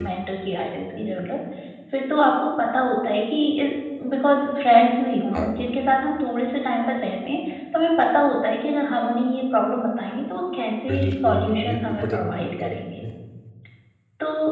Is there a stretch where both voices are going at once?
Yes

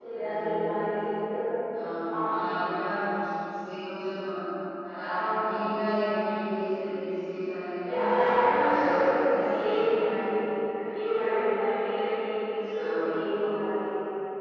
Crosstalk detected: Yes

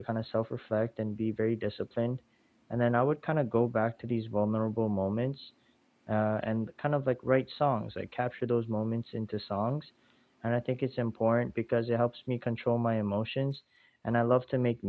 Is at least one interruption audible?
No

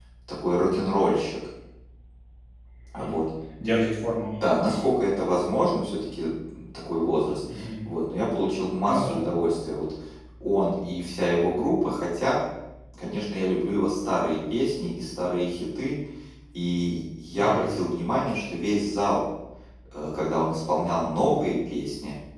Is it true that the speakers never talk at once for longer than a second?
Yes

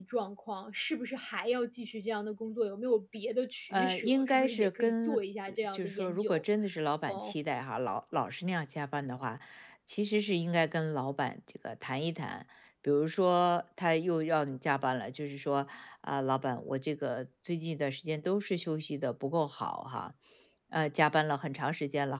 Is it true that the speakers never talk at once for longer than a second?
No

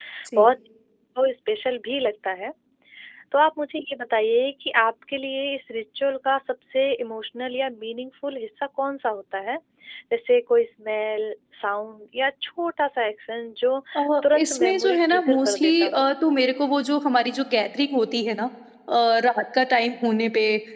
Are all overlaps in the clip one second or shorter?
No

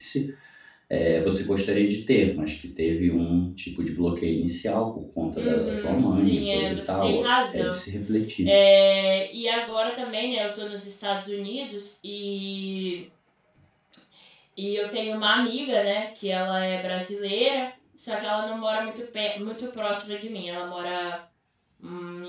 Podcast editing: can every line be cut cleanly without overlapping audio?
No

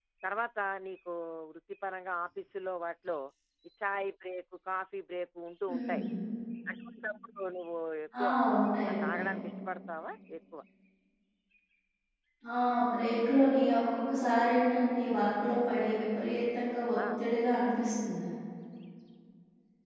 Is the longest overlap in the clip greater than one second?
No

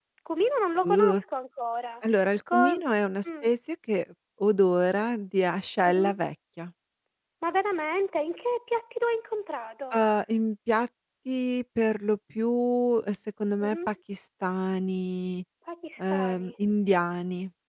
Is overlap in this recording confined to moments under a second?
Yes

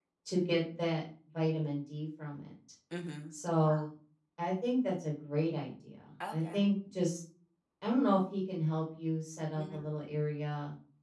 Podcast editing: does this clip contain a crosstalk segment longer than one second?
No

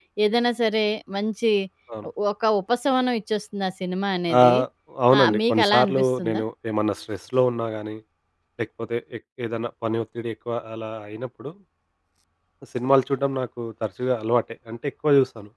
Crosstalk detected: Yes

